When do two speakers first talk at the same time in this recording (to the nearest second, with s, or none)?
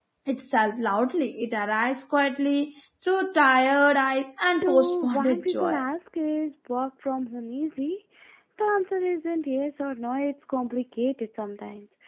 5 s